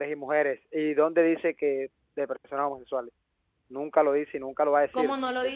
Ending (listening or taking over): taking over